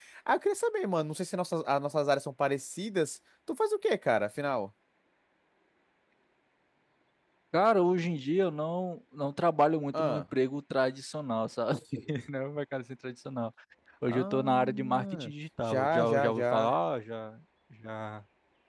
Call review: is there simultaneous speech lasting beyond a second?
Yes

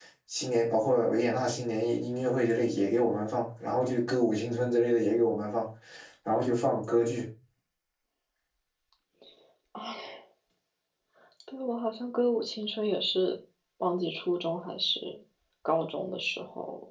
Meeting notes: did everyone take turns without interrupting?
Yes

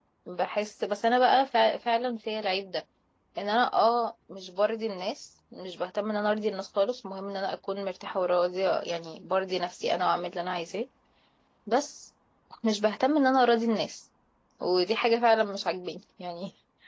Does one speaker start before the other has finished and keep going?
No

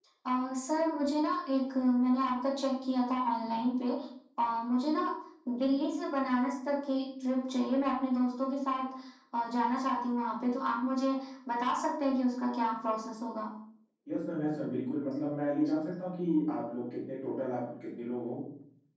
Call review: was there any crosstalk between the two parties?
No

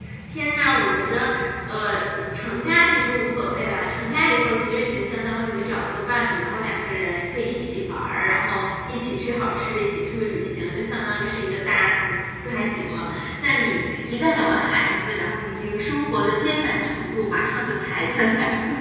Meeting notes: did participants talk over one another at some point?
No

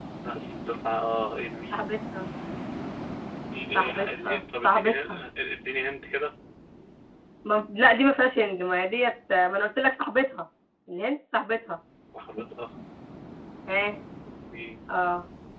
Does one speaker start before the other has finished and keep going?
Yes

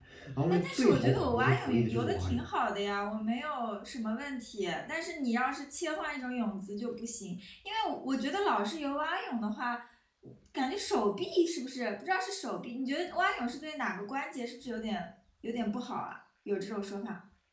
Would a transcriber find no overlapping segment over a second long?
No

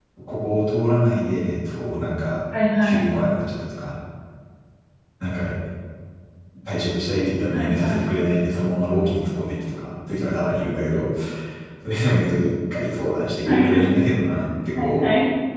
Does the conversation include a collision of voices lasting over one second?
No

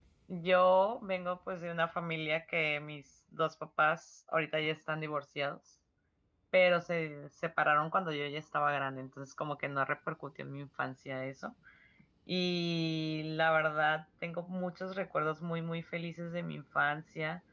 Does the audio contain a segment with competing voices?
No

